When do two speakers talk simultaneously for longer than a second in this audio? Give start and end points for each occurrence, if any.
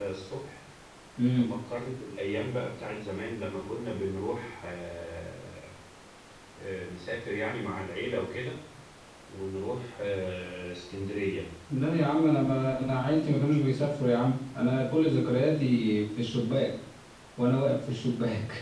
none

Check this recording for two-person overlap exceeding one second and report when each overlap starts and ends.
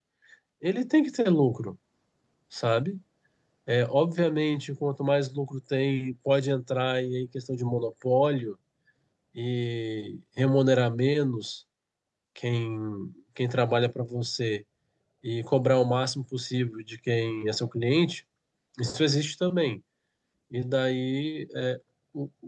none

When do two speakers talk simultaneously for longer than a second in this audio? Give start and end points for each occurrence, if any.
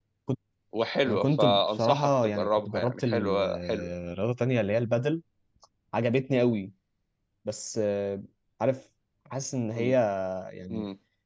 1.1-3.9

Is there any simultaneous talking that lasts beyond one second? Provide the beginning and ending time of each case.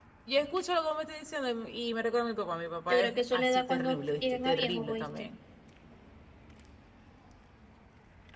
2.9-5.3

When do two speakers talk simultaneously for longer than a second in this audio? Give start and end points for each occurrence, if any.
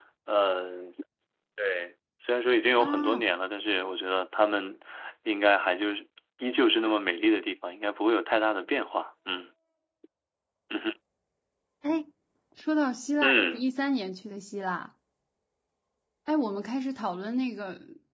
none

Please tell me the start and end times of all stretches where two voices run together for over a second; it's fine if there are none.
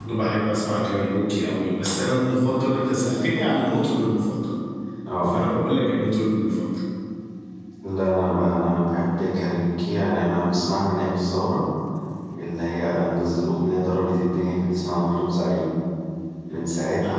none

